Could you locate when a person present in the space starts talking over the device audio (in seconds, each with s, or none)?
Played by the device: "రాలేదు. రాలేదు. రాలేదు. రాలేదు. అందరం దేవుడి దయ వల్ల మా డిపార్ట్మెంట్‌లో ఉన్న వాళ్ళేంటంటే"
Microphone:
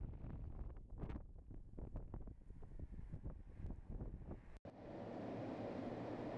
none